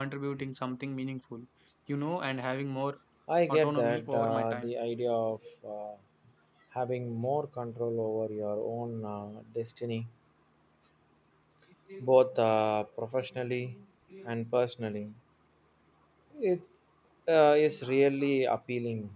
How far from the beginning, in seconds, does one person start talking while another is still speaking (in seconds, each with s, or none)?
3.5 s